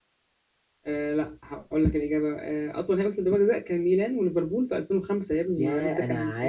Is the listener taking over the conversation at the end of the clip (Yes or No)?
Yes